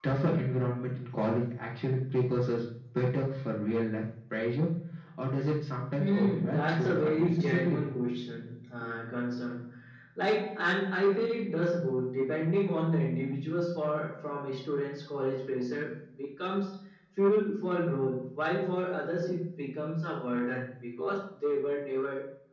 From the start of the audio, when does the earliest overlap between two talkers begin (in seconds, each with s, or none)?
6.0 s